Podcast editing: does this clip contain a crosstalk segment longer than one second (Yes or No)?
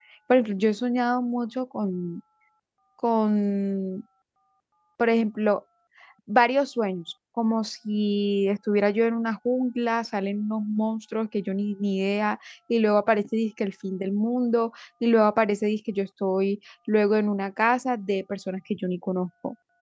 No